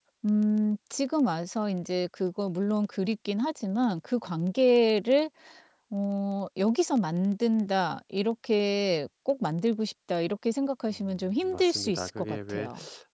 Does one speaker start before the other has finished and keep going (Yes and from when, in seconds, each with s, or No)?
Yes, from 10.9 s